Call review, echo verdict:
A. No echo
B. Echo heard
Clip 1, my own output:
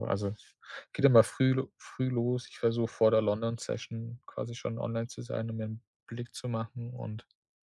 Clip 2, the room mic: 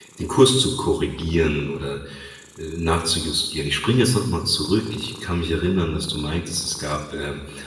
A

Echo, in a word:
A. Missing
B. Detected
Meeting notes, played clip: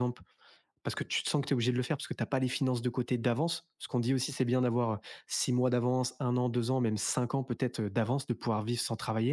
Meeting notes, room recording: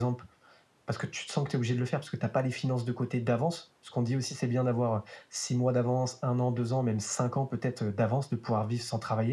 B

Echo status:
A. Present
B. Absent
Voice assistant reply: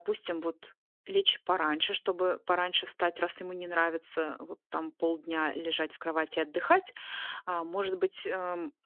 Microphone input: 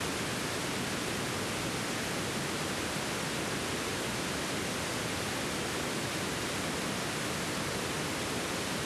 B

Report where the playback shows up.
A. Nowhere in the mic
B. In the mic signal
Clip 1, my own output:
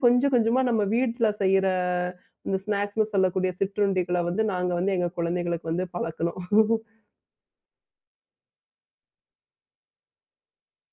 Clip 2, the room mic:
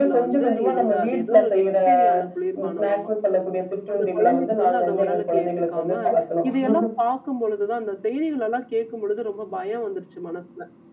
B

